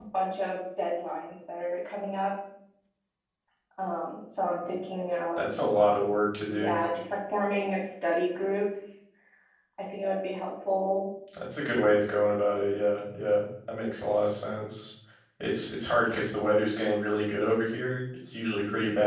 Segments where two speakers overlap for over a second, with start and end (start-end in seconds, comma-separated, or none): none